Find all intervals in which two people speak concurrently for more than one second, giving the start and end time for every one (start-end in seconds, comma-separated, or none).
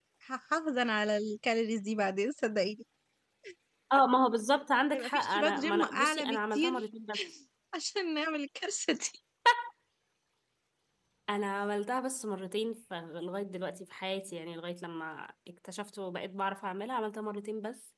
4.9-6.7